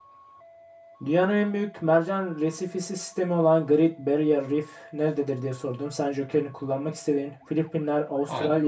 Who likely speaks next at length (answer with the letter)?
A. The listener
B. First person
B